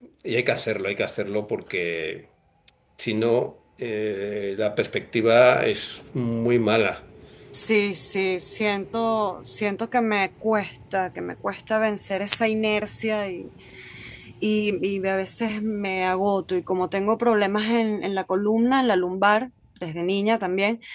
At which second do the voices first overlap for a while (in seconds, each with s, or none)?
none